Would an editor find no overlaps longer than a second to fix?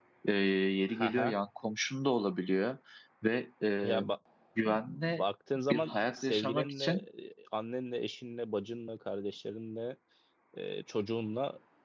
No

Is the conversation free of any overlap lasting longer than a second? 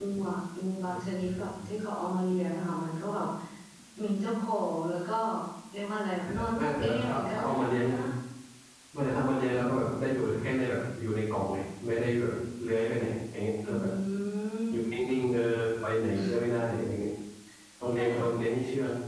No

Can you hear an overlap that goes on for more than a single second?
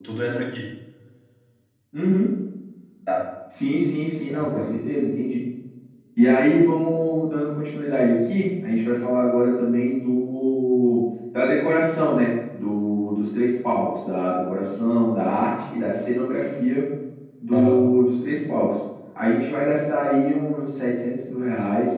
No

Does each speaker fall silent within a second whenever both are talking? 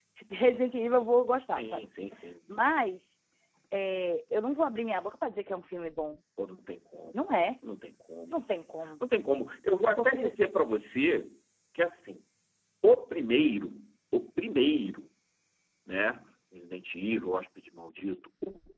Yes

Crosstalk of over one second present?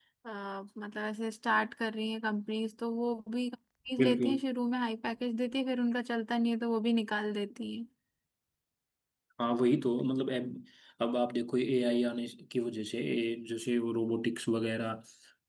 No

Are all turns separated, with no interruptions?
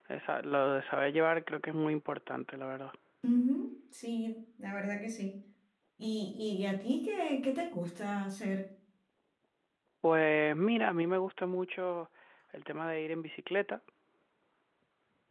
Yes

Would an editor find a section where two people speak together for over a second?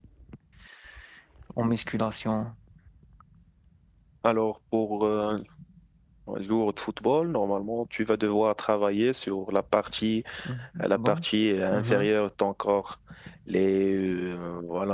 No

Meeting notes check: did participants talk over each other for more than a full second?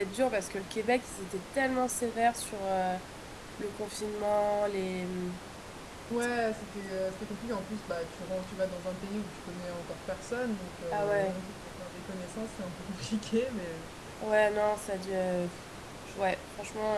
No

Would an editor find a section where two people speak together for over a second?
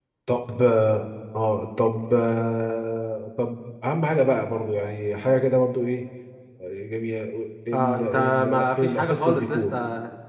Yes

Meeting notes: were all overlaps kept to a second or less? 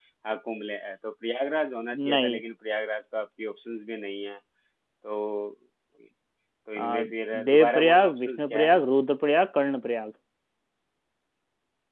No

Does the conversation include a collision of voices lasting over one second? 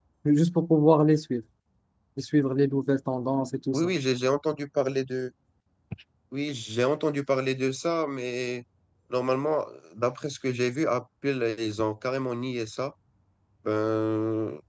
No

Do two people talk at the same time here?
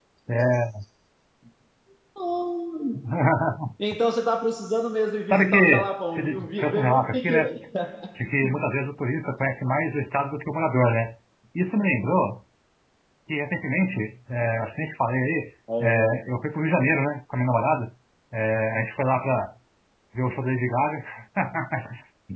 Yes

